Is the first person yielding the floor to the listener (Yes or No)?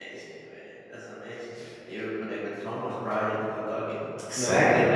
No